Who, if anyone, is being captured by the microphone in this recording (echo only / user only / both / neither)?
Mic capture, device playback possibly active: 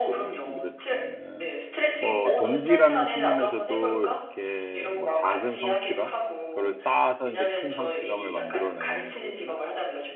both